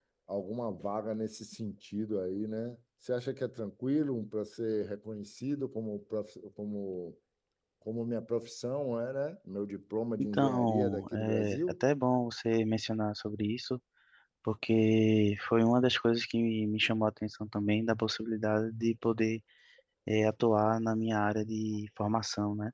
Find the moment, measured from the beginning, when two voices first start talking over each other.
10.2 s

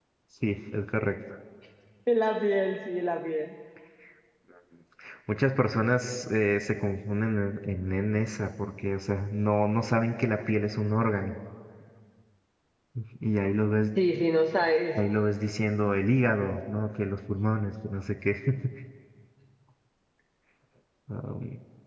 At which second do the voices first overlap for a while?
none

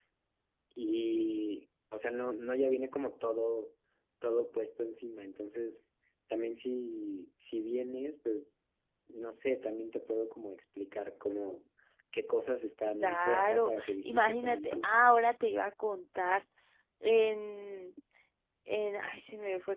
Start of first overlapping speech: 12.9 s

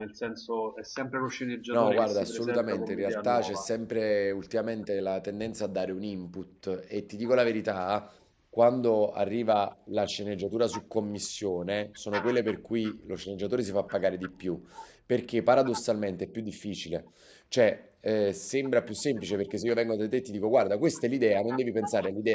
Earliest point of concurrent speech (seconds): 1.7 s

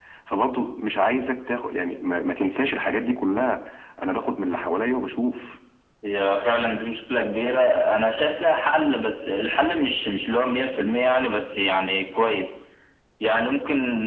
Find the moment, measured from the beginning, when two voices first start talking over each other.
none

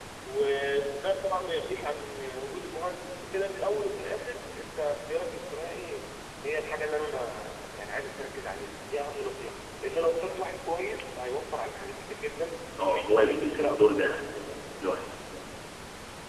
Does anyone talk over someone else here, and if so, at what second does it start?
12.8 s

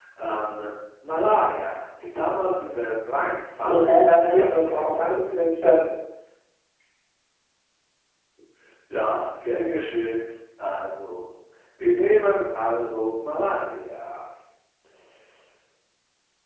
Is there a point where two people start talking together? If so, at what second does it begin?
3.6 s

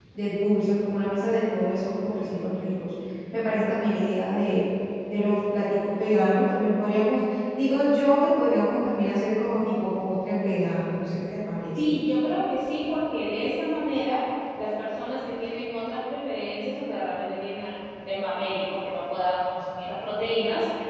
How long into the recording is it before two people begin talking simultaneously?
none

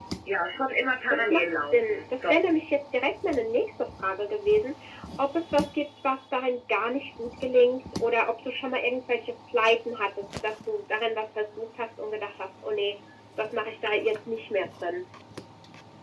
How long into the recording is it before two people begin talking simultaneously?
1.1 s

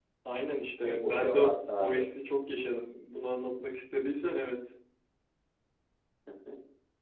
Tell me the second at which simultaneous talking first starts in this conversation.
0.8 s

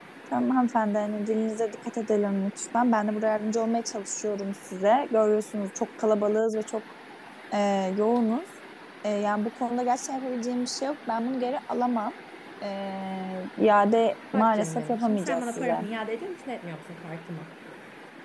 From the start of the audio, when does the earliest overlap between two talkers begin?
14.3 s

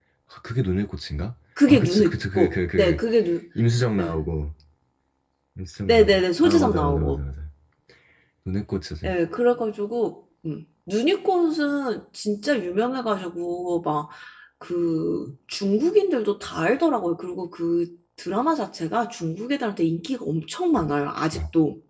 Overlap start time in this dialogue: 1.7 s

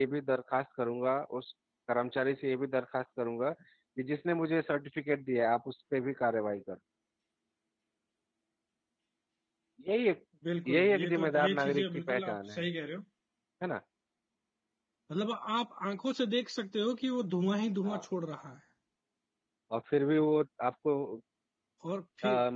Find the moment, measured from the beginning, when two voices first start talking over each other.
10.7 s

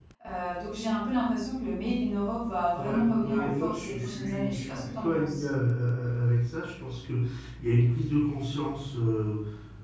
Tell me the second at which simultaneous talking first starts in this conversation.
2.8 s

